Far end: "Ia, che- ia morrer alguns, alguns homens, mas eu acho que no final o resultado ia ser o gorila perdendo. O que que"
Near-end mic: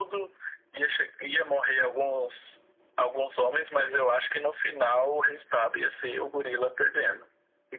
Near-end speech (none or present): none